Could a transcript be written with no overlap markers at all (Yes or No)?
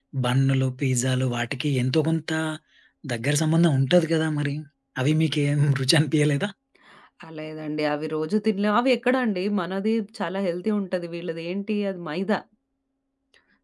Yes